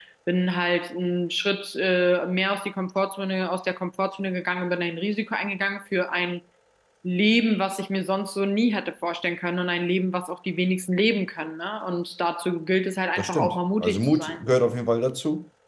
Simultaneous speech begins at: 13.2 s

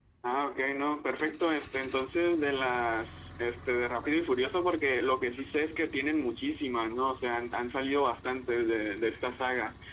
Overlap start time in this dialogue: none

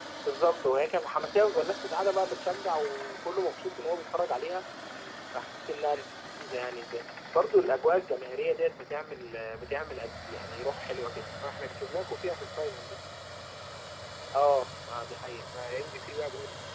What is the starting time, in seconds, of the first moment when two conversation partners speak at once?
none

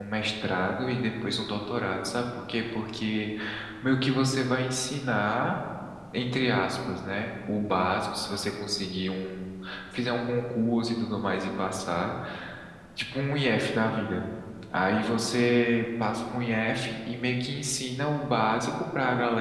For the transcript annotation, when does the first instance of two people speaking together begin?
none

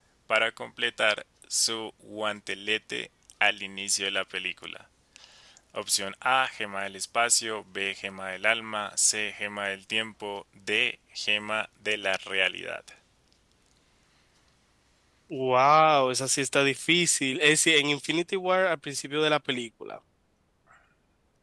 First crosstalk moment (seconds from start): none

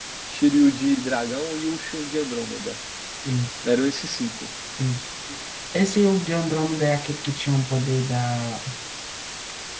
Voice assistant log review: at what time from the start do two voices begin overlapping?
none

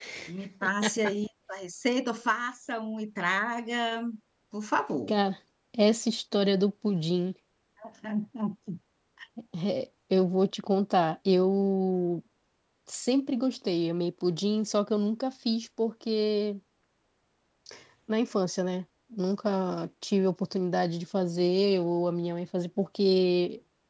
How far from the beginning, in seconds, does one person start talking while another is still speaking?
none

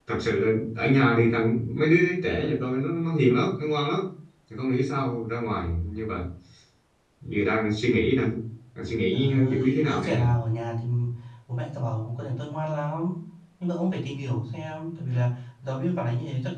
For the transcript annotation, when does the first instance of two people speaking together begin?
9.1 s

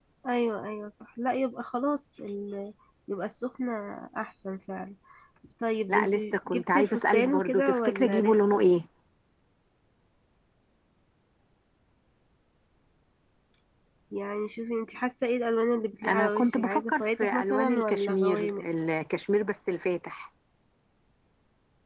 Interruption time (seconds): 5.9 s

